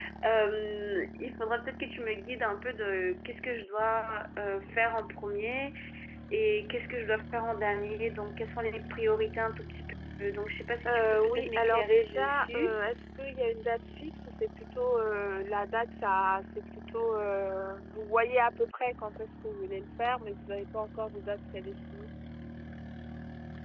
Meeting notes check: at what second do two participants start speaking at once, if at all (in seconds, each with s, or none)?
10.8 s